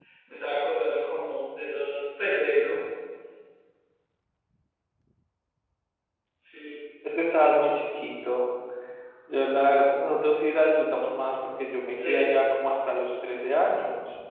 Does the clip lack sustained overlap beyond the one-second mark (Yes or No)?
Yes